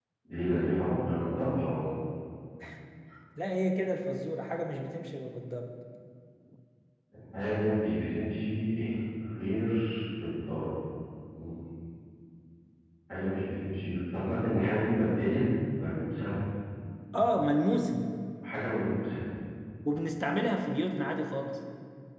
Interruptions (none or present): none